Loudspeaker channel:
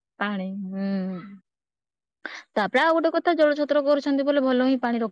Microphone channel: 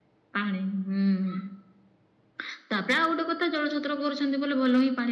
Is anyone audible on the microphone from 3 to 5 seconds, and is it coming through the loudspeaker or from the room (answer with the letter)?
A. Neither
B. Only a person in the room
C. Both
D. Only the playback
D